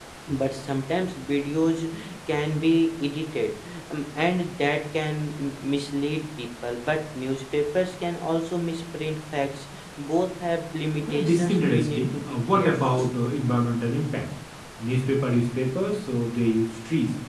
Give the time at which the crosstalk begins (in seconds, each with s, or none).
11.0 s